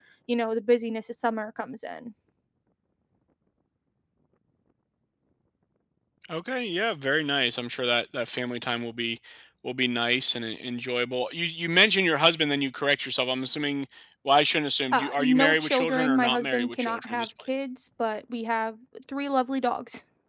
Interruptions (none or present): present